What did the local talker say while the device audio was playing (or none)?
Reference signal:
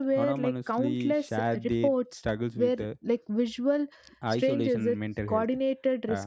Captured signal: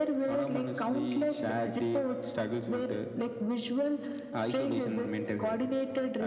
none